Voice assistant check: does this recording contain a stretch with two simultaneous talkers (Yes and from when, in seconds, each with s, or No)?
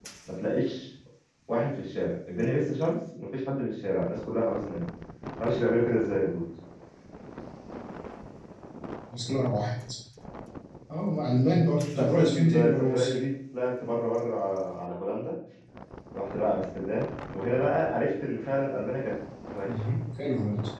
Yes, from 11.8 s